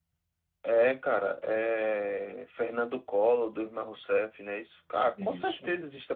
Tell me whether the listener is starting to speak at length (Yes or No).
No